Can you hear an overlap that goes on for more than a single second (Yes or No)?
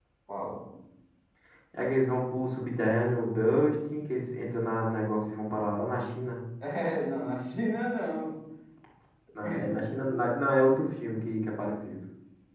No